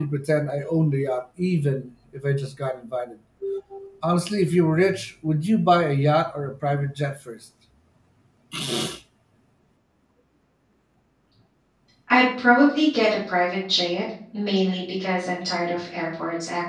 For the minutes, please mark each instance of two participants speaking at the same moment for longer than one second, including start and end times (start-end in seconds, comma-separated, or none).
none